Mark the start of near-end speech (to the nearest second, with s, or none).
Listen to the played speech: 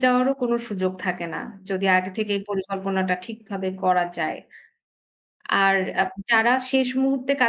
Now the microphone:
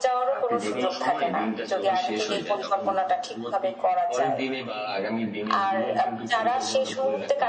0 s